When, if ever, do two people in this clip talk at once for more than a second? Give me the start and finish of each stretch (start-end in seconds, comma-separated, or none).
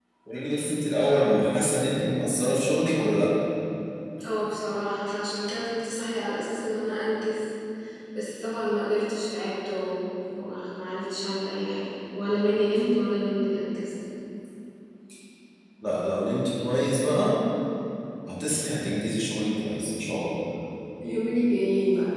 none